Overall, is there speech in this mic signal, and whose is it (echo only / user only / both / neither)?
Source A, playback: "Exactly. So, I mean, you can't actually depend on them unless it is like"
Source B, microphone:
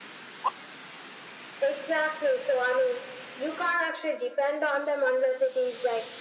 echo only